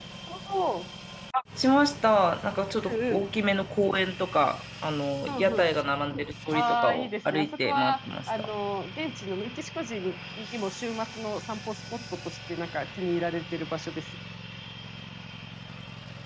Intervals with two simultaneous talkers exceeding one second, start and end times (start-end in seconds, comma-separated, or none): 6.5-8.5